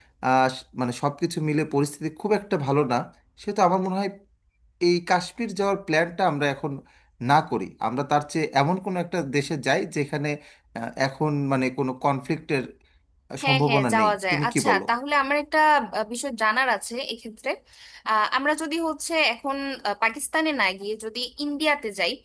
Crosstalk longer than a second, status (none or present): present